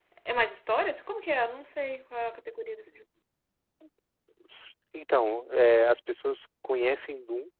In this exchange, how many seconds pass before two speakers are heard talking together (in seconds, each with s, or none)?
none